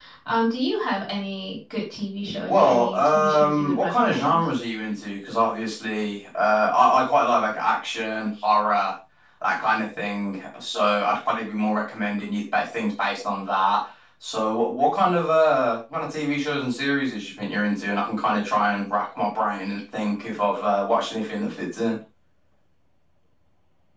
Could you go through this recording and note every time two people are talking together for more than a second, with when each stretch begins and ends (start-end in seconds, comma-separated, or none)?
2.5-4.4